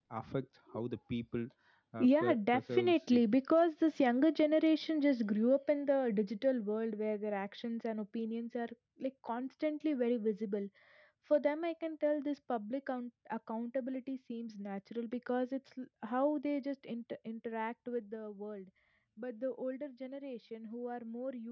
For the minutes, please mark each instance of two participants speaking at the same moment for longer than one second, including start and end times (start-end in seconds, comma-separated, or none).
2.0-3.2